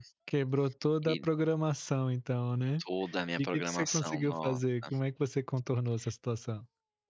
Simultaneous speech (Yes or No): Yes